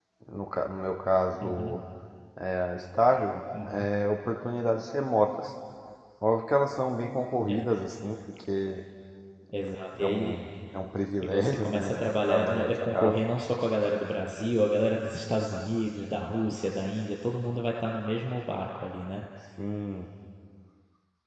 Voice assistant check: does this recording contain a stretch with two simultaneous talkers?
Yes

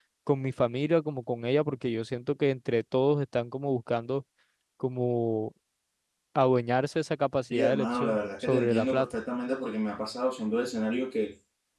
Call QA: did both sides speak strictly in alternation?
No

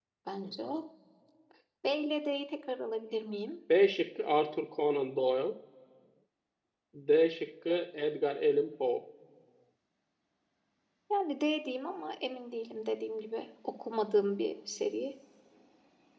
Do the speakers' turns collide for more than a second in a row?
No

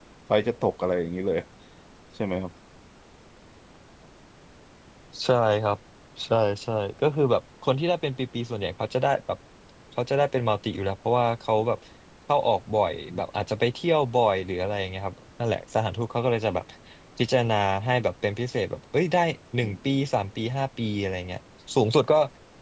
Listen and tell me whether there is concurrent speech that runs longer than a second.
No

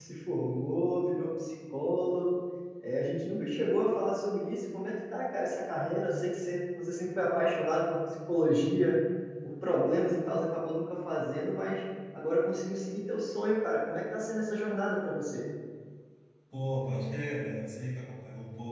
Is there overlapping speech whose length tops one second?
No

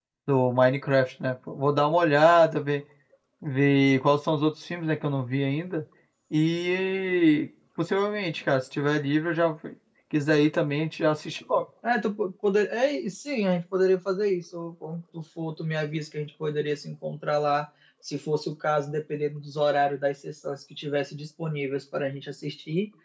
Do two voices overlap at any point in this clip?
No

